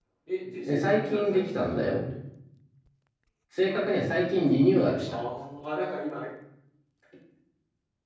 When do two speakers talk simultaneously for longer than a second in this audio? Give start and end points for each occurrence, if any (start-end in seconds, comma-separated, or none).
0.6-2.0